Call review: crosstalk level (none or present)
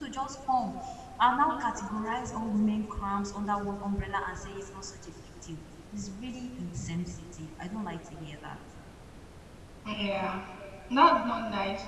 none